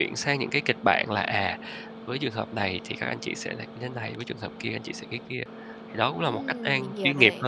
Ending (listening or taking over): taking over